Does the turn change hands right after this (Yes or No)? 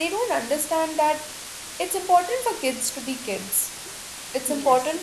No